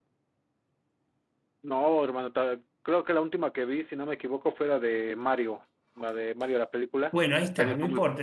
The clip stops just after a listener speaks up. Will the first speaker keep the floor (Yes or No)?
No